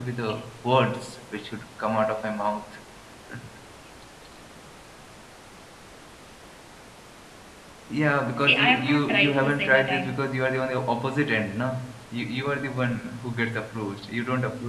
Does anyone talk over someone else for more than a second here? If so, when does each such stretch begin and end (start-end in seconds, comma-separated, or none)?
8.4-10.1